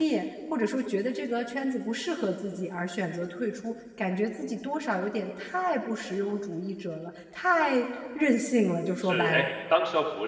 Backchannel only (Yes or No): No